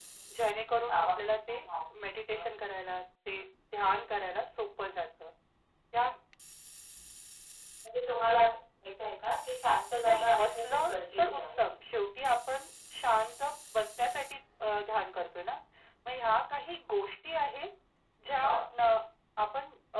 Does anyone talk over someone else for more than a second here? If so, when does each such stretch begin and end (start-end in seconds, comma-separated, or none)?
10.1-11.6